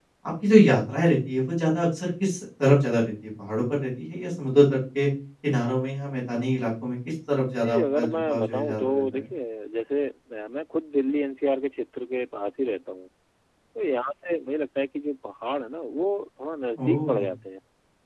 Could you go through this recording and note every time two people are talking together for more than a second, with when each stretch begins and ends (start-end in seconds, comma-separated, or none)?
7.6-9.0